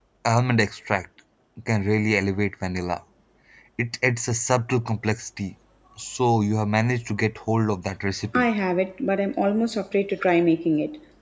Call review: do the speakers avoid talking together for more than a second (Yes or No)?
Yes